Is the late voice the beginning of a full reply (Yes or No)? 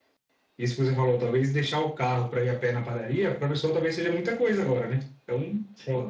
No